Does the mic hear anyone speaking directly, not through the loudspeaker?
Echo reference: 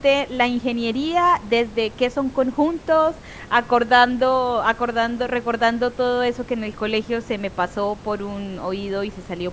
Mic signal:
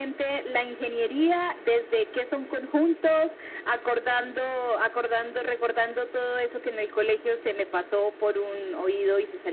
No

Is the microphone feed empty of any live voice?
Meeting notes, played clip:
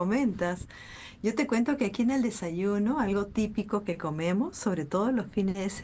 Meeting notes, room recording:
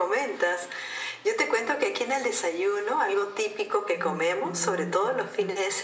No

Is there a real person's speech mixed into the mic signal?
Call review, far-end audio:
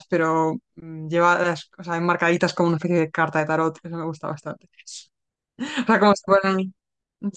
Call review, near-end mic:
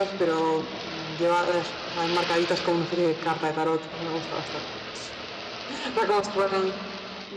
No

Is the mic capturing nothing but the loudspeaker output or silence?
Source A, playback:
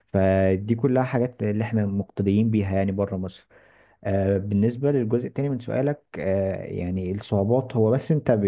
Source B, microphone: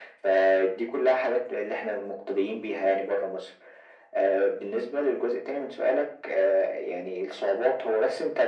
Yes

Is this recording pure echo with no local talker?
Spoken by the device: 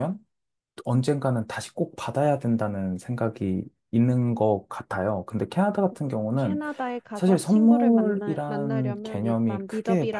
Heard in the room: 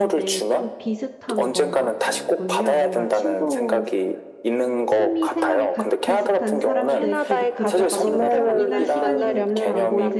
No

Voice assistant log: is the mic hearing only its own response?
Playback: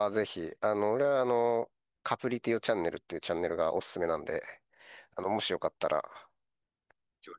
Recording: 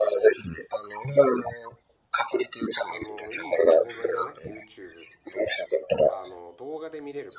No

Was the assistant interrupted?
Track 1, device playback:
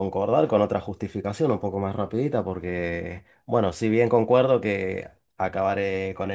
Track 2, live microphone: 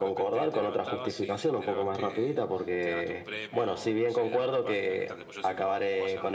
Yes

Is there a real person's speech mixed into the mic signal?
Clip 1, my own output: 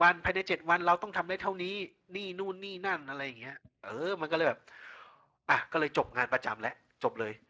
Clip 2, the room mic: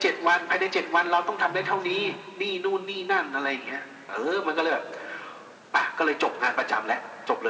Yes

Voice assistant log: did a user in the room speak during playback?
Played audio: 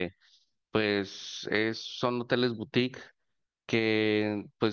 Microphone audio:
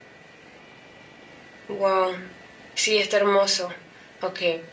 Yes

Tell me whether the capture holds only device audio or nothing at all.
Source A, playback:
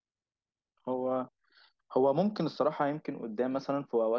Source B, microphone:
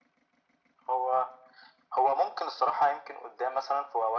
Yes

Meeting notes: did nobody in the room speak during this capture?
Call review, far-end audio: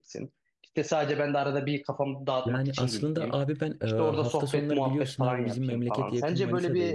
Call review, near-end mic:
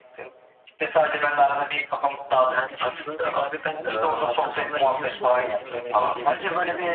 No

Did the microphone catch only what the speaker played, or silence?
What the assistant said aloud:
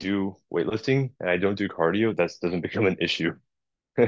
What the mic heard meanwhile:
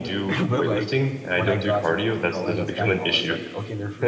No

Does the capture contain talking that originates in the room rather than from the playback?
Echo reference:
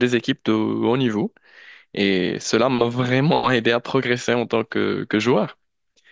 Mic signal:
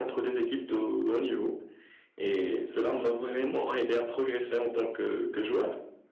No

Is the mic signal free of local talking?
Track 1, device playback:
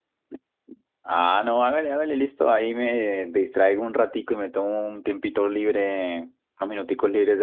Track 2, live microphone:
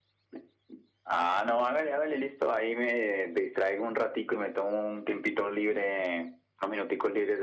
Yes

